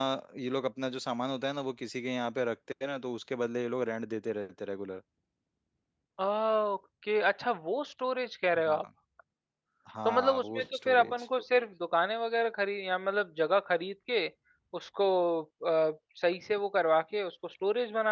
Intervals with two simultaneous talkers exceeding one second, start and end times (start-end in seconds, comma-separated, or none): 10.1-11.3